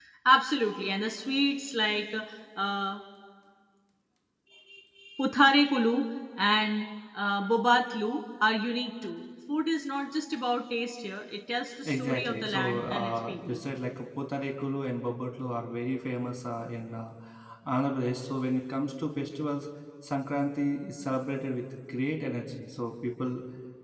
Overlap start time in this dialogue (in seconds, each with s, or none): 11.8 s